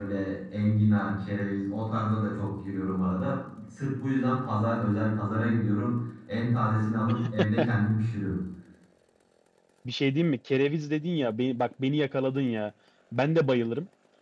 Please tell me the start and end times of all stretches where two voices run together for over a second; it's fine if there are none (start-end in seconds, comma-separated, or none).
none